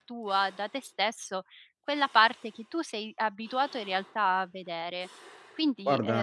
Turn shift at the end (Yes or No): No